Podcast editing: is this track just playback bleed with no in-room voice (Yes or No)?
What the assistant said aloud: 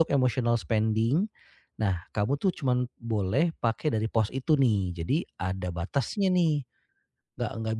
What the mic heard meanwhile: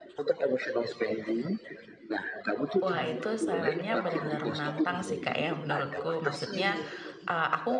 No